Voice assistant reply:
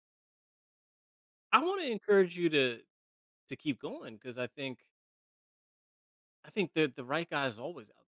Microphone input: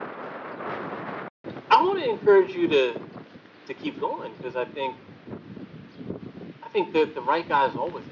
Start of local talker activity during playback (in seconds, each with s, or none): none